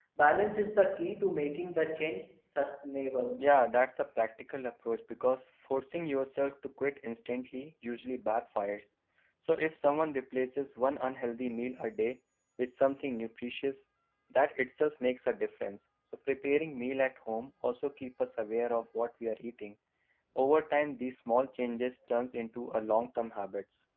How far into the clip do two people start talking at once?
none

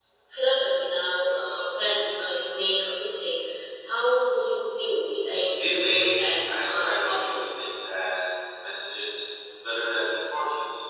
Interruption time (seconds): 5.6 s

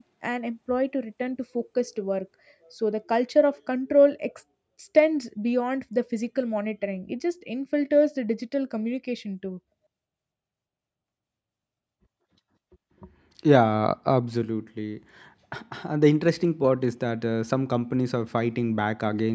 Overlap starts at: none

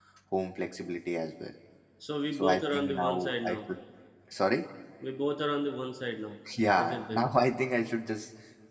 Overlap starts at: 2.3 s

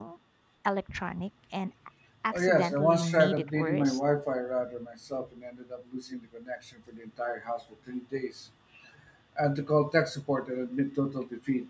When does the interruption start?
2.3 s

